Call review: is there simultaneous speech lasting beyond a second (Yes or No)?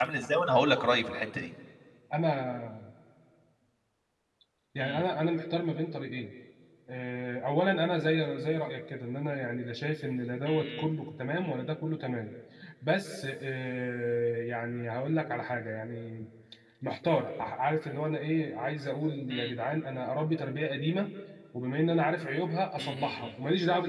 No